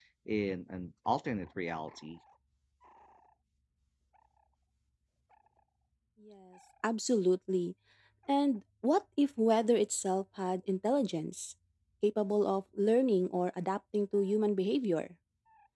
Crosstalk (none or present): none